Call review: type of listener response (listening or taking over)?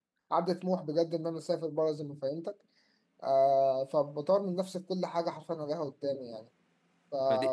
taking over